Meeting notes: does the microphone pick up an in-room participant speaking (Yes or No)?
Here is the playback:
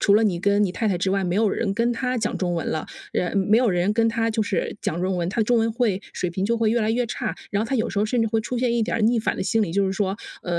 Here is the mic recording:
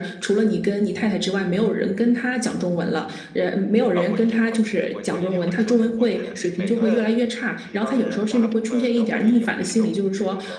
Yes